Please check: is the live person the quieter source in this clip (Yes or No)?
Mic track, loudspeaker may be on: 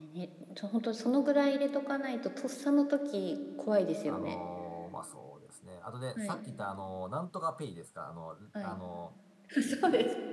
Yes